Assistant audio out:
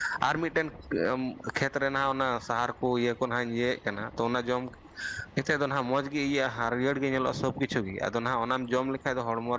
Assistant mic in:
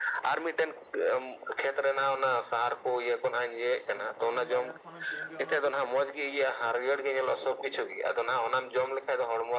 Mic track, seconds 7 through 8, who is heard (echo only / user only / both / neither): echo only